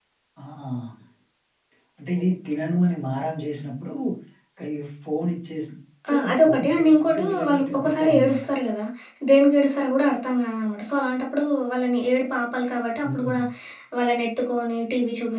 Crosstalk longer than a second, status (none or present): present